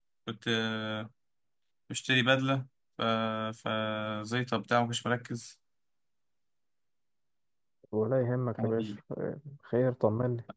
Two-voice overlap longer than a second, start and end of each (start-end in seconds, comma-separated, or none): none